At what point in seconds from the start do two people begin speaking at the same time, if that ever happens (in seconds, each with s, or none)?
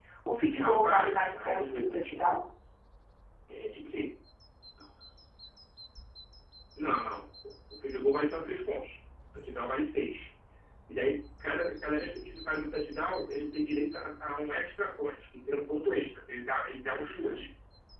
0.5 s